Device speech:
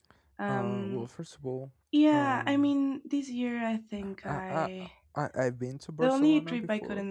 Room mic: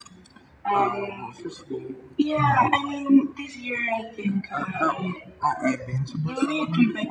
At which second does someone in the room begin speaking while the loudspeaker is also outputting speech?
none

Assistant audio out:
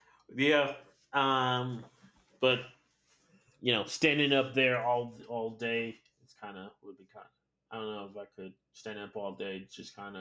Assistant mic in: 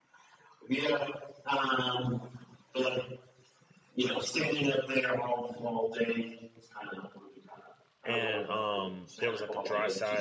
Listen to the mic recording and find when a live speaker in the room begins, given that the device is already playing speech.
8.0 s

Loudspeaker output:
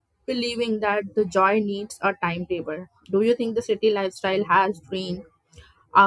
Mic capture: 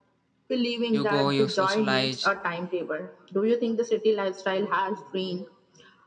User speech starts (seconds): 0.9 s

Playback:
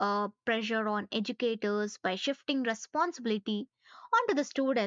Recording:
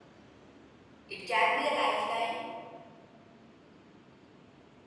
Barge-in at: 1.1 s

